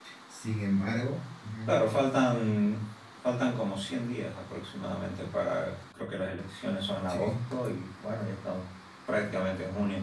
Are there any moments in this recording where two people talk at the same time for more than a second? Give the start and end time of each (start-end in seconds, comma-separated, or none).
none